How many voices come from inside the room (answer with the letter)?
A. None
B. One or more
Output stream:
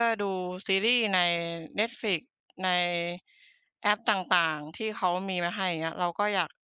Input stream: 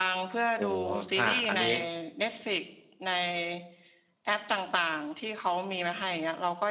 B